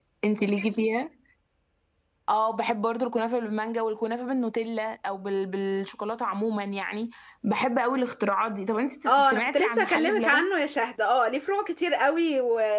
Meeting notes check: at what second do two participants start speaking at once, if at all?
9.1 s

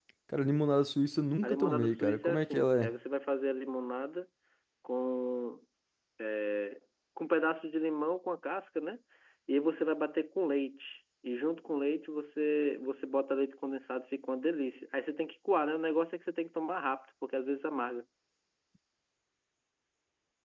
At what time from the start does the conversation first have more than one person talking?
1.4 s

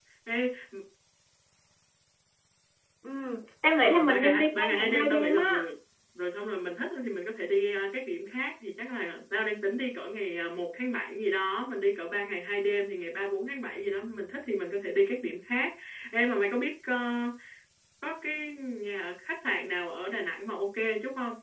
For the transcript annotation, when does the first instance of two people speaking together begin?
3.8 s

